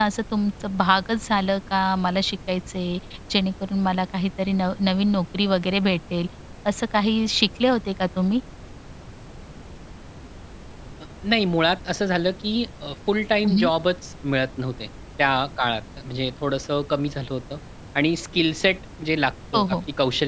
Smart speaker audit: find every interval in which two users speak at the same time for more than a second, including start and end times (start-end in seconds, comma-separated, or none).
none